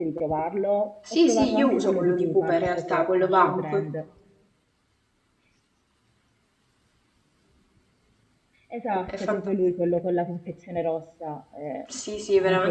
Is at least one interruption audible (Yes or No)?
Yes